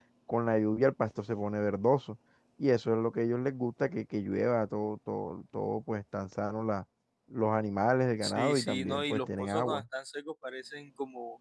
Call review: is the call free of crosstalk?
No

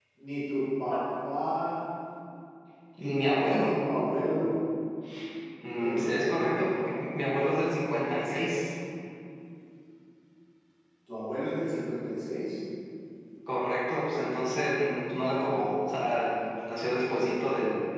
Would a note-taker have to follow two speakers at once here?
Yes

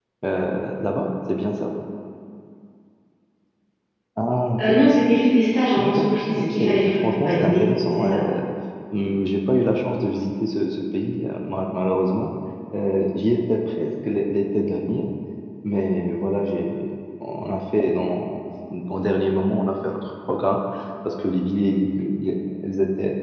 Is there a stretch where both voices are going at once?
Yes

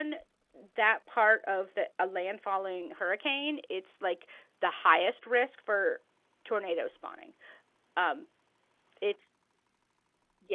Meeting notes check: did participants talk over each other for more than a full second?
No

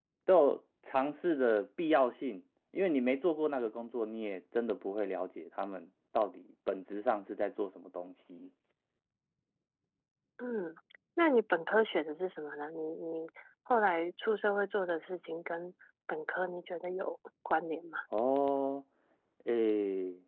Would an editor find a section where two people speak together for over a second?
No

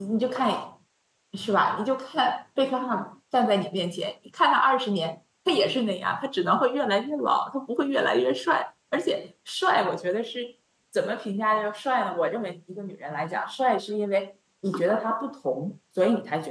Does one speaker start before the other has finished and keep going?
No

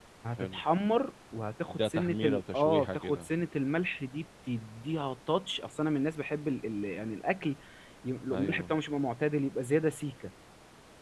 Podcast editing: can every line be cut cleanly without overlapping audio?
No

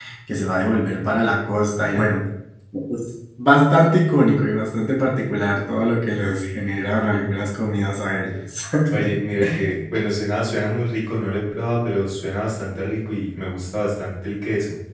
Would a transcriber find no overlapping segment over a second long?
Yes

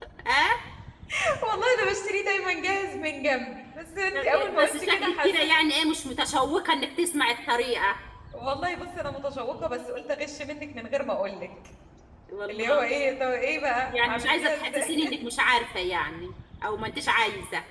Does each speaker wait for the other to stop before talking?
No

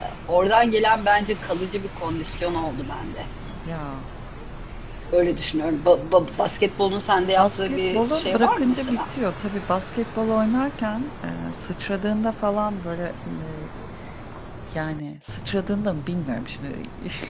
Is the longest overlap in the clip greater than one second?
Yes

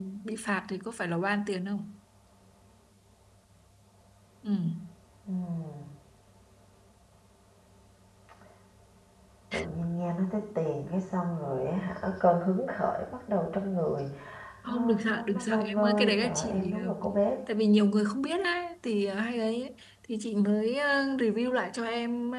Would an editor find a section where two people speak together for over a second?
Yes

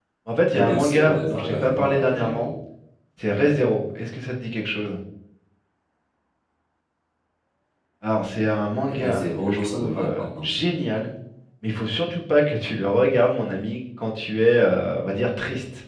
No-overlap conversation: No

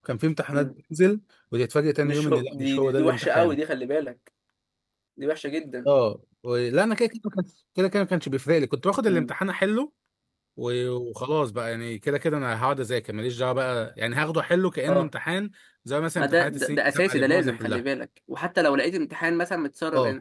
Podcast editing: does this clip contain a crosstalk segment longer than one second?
Yes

